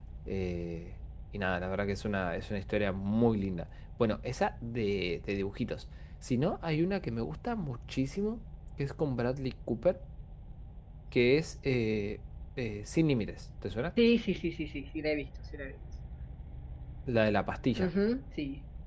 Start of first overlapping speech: none

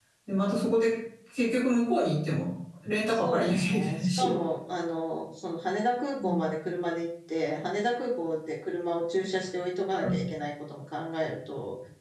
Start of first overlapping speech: 3.1 s

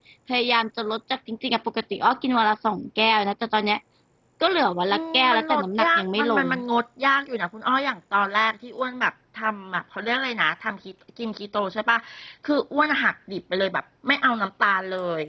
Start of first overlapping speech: 4.9 s

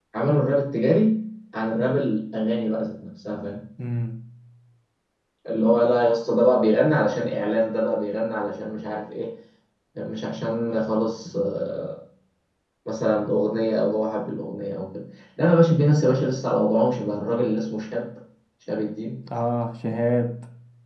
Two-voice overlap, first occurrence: none

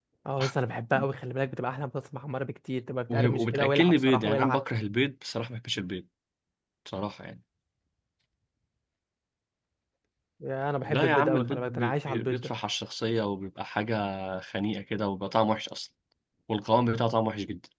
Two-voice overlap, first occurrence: 3.1 s

